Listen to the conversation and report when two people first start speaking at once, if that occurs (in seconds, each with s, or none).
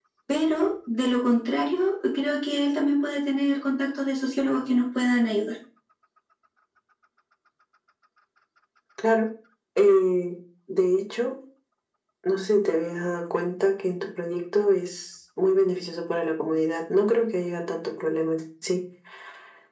none